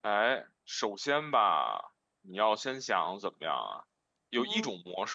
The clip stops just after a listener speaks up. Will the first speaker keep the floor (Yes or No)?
Yes